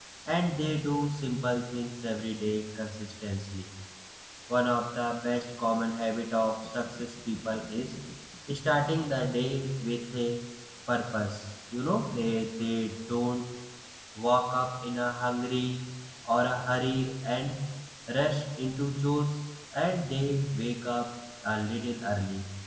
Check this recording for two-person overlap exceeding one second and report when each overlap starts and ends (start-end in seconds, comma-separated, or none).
none